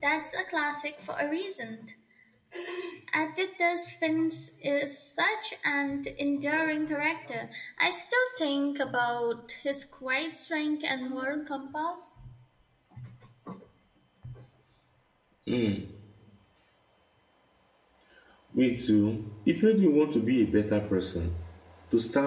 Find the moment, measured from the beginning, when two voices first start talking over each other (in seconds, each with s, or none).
none